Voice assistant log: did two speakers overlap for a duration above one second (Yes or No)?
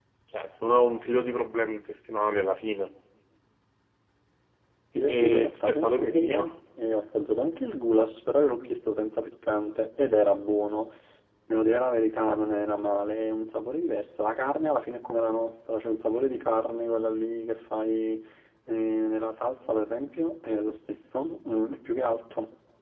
Yes